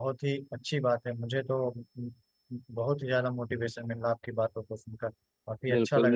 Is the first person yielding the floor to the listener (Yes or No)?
Yes